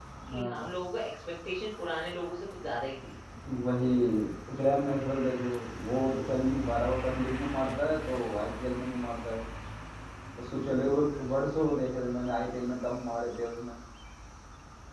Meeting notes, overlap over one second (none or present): none